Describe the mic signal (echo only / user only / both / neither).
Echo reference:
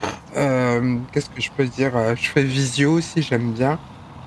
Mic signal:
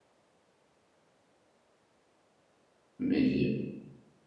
user only